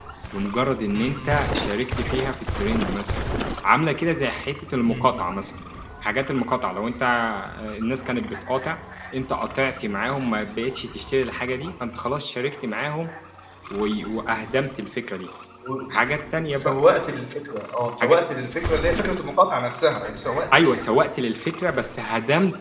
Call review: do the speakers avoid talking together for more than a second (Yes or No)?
Yes